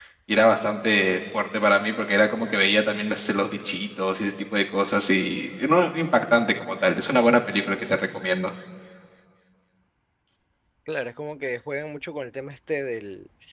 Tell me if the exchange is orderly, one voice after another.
Yes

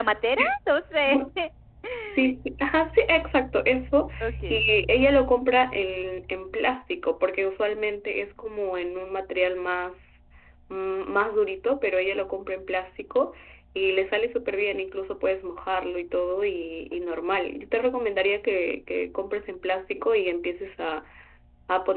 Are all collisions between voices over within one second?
Yes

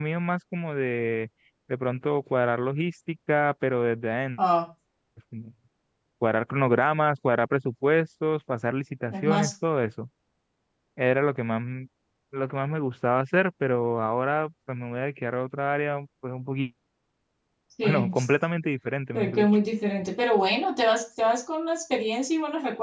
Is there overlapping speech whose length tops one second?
No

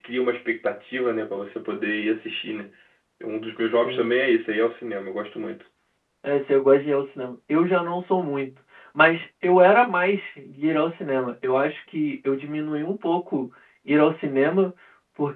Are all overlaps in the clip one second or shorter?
Yes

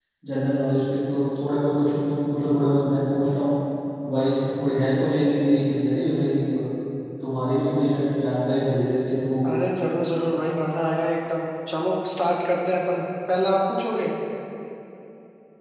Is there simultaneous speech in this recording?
No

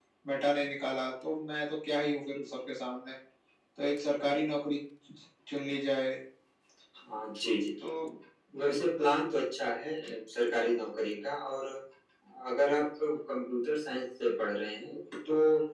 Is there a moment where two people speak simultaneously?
No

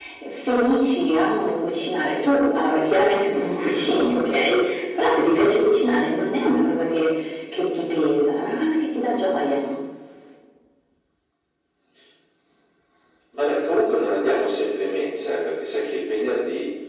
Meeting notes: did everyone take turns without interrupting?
Yes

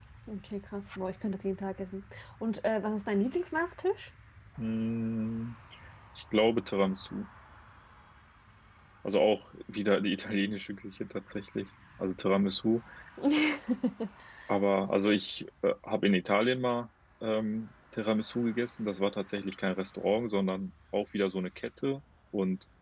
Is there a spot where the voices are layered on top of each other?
No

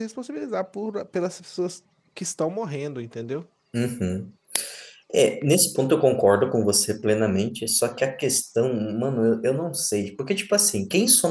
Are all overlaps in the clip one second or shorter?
Yes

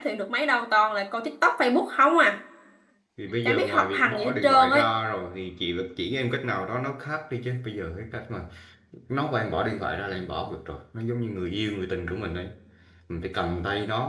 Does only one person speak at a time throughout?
No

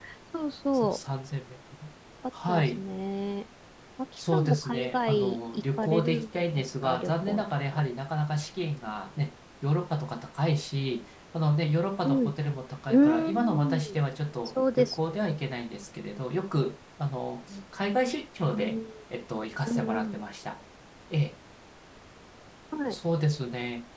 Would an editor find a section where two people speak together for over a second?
Yes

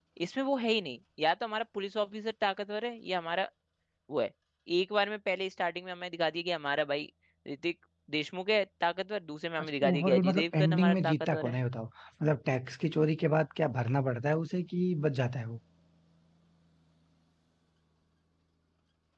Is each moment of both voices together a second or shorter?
No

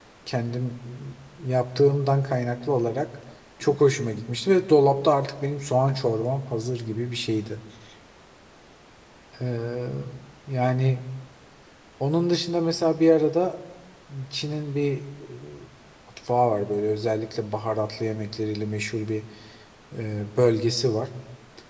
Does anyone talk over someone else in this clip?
No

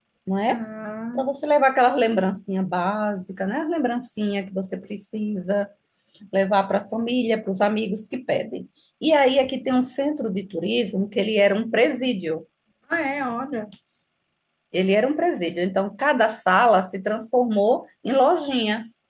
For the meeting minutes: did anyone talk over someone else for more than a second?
No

